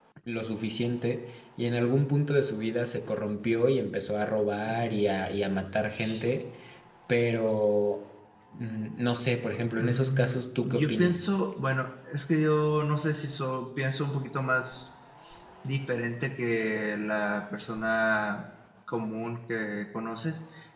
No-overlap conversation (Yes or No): No